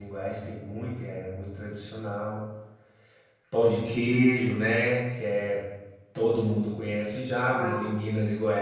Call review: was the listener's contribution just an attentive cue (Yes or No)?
Yes